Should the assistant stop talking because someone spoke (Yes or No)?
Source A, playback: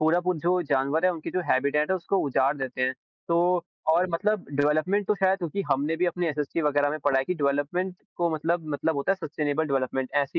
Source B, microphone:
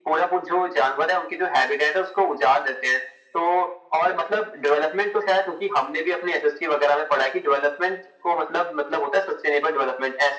No